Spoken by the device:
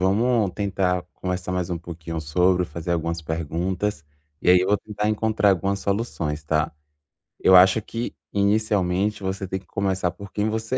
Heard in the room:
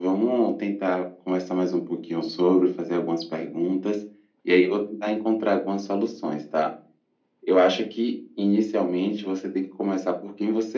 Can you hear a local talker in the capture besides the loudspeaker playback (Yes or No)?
No